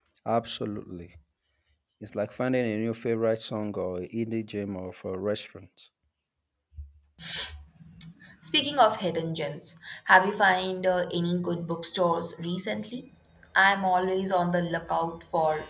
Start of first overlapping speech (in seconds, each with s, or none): none